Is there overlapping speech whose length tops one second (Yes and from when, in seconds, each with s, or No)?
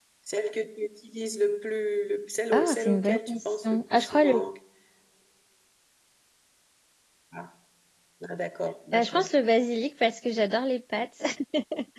Yes, from 2.5 s